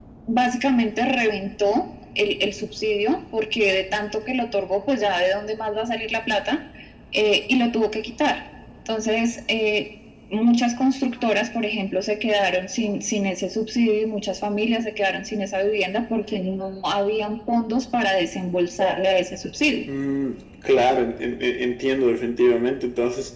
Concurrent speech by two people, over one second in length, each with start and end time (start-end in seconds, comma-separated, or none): none